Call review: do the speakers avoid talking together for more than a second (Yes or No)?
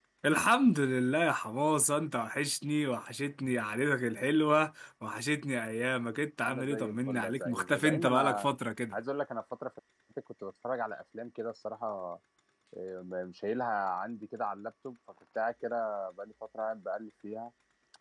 No